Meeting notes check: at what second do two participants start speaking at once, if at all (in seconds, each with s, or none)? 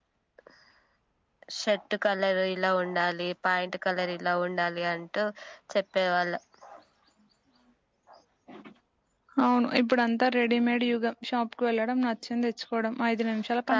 none